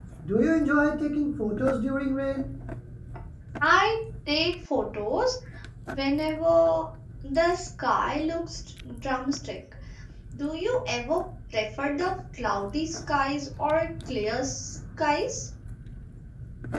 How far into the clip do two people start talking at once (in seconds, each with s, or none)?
none